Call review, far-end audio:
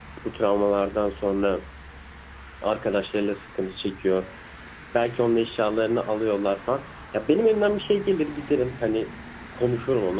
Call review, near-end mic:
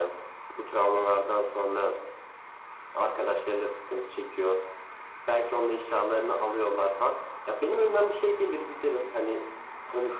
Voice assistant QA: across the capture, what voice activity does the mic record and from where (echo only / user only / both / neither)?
echo only